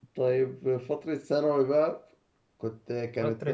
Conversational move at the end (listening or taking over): taking over